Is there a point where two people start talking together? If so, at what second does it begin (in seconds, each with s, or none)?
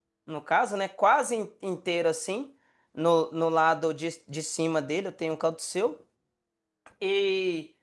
none